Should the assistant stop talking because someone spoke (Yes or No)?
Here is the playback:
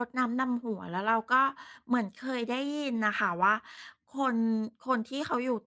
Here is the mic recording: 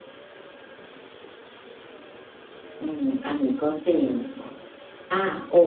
Yes